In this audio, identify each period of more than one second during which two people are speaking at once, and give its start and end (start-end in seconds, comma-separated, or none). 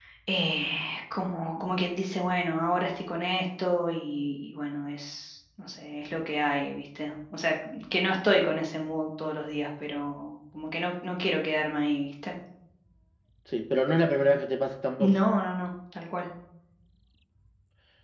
none